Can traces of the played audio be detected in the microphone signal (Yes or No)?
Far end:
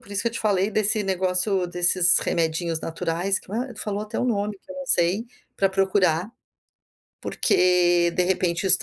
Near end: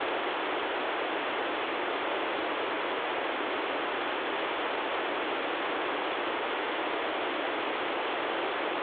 No